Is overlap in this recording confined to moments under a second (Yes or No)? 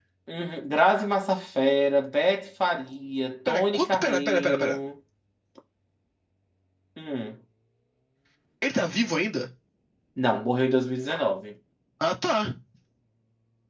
No